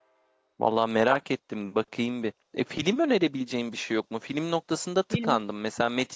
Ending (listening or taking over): listening